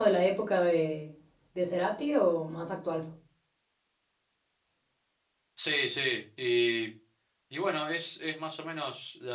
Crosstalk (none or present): none